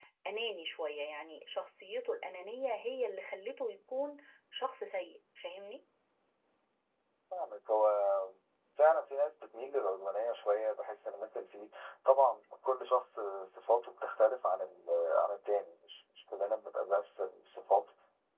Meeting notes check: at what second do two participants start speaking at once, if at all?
none

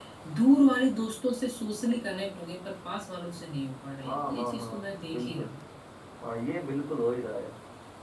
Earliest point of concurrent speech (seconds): 4.0 s

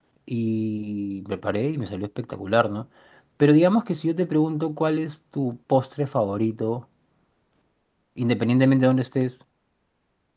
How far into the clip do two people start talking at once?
none

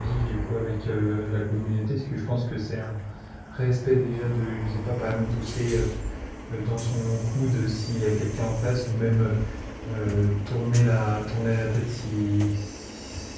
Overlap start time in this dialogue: none

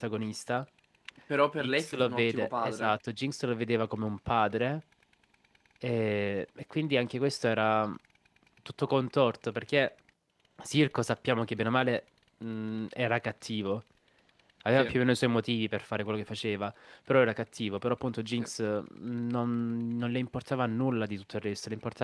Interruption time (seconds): 1.6 s

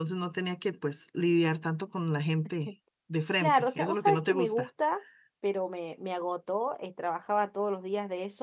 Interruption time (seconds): 3.4 s

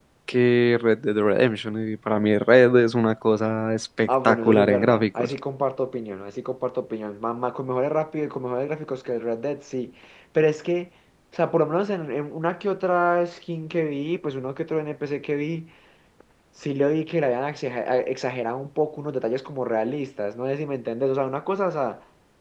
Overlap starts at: 4.1 s

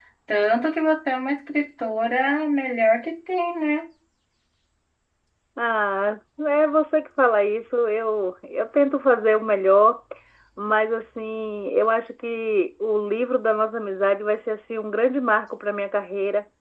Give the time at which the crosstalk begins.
none

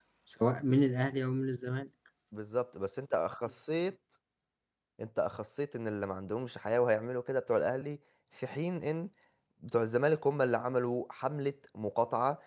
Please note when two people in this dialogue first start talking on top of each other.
none

